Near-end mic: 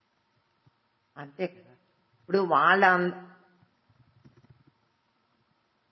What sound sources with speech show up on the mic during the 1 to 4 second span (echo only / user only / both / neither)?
user only